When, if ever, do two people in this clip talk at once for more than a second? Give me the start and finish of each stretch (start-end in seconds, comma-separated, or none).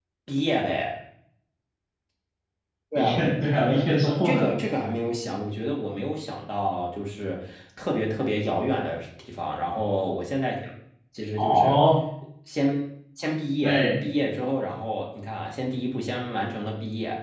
3.0-4.5